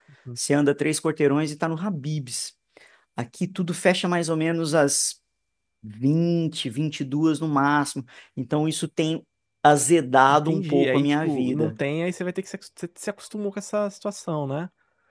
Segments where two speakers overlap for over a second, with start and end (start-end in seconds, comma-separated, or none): 10.3-11.7